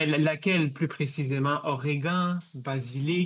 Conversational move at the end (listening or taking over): taking over